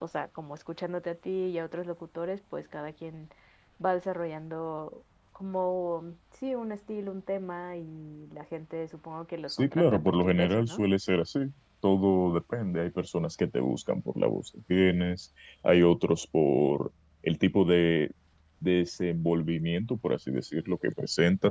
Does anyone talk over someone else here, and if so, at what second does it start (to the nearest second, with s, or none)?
9 s